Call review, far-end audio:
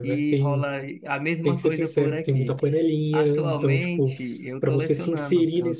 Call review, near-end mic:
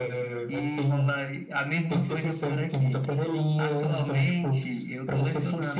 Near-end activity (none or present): none